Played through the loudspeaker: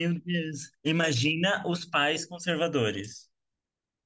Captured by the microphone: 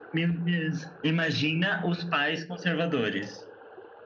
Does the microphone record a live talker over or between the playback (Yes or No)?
No